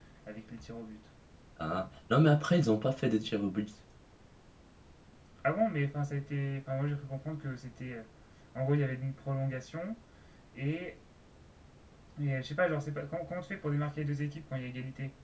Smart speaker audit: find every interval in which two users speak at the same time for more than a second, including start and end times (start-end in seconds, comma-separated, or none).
none